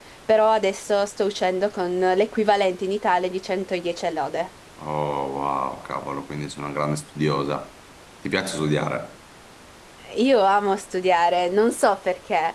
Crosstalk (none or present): none